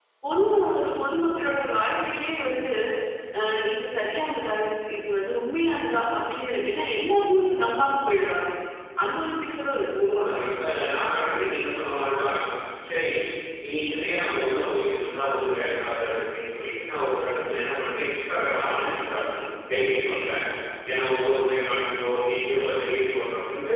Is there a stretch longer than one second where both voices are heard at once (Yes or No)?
No